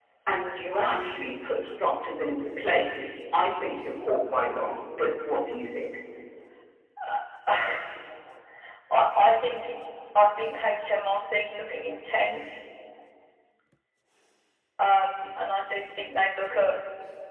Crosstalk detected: No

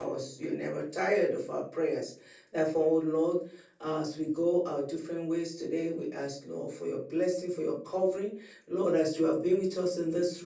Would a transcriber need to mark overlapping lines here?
No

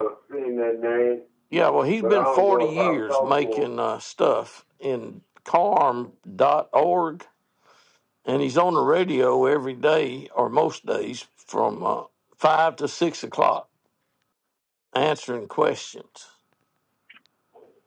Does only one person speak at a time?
No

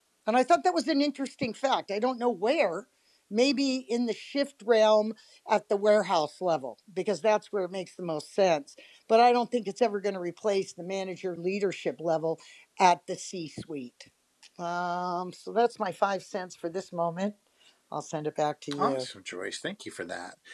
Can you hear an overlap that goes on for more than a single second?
No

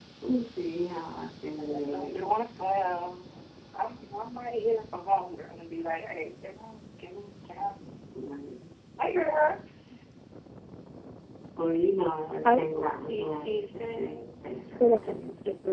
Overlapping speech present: Yes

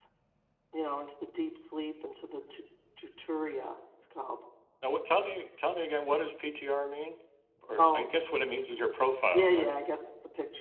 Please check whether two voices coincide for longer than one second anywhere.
No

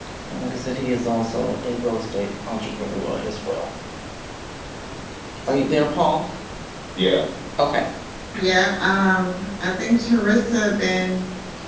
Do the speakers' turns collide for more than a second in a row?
No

